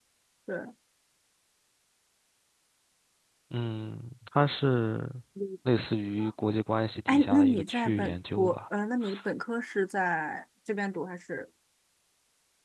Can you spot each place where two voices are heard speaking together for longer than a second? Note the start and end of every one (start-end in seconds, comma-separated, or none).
7.1-8.6